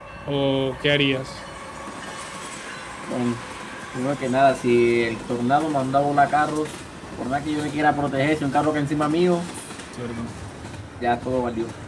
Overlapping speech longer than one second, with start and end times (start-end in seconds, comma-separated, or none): none